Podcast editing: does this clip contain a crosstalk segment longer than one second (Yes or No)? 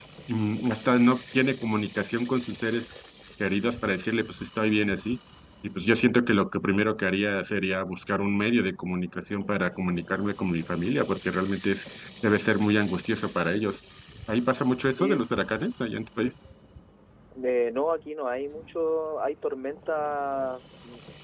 No